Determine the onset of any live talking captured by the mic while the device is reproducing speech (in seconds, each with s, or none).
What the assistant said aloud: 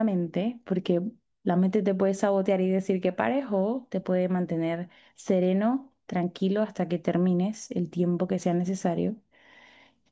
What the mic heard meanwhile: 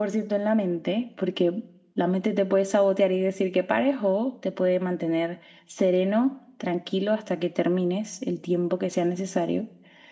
none